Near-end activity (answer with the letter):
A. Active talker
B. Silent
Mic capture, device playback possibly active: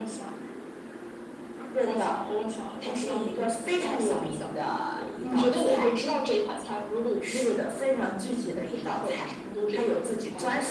B